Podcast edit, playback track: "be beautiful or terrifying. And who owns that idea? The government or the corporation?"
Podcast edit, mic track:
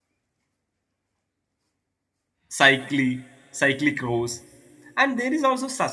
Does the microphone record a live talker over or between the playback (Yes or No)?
Yes